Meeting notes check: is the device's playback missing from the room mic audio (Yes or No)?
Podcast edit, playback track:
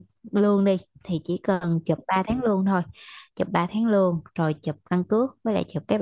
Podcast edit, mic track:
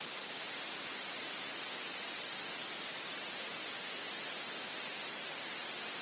Yes